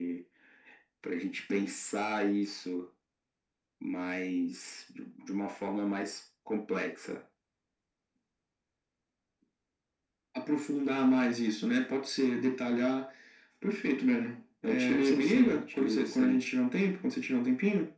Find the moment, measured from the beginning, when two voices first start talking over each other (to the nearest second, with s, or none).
15 s